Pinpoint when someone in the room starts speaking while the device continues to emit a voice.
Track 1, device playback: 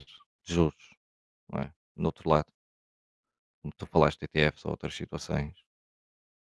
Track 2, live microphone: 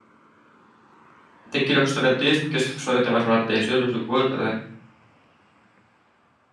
1.5 s

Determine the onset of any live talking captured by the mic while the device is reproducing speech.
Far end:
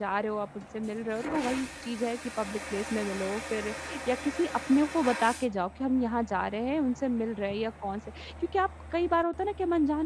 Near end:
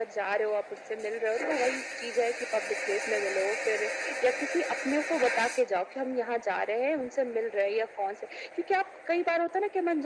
none

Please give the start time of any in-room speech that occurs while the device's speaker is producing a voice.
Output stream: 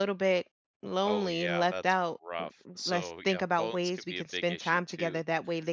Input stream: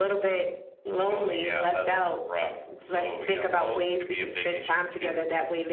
none

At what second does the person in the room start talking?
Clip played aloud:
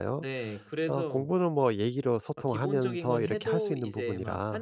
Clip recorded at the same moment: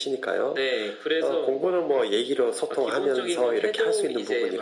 none

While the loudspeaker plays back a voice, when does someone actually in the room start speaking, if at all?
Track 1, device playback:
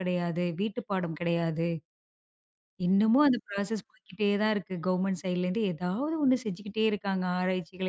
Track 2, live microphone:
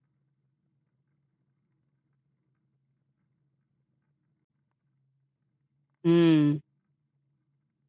6.0 s

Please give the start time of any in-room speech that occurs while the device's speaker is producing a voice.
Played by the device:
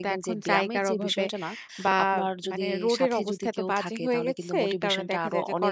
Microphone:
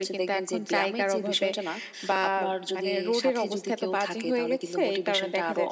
none

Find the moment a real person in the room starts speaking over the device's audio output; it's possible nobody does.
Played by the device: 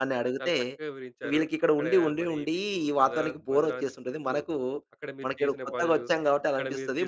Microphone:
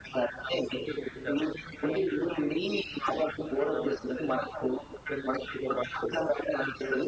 none

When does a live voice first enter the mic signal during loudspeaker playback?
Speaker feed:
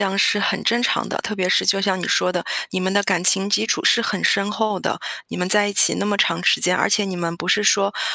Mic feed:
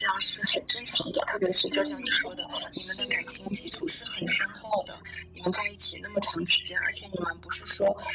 1.7 s

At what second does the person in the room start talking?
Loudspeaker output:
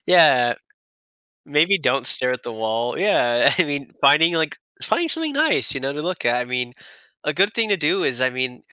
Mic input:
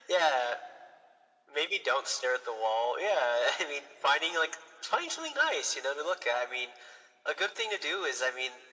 none

